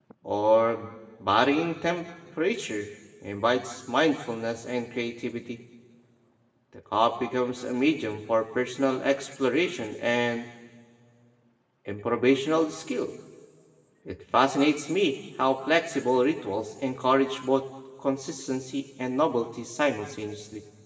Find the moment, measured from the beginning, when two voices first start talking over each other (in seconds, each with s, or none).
none